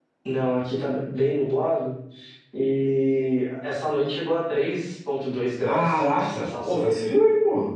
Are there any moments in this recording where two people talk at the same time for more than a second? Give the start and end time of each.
5.6-6.8

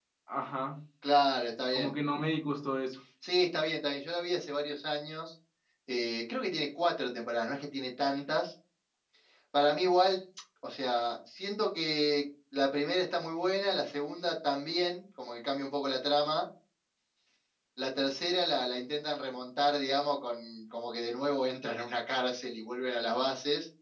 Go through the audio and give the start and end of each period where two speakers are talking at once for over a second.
none

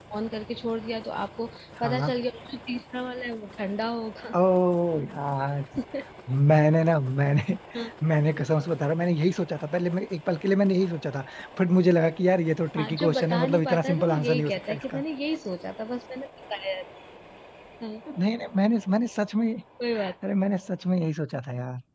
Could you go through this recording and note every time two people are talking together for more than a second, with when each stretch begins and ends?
12.8-15.0

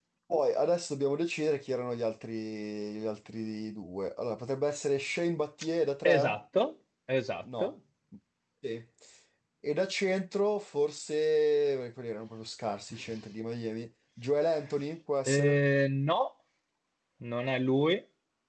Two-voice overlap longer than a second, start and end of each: none

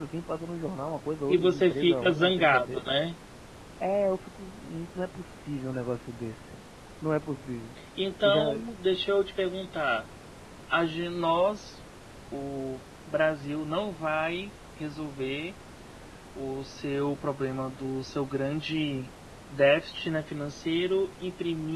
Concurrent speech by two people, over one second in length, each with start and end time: 1.3-2.8

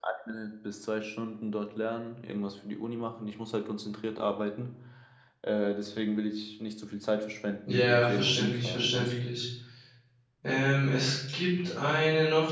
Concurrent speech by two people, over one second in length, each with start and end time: 7.7-9.3

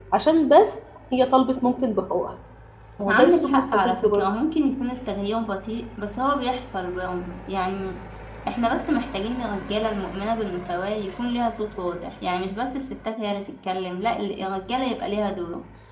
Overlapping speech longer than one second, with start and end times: 3.1-4.3

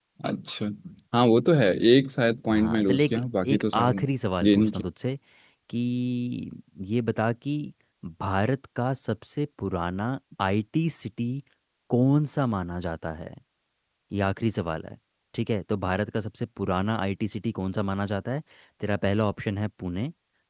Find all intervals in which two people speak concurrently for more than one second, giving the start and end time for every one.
2.5-4.0

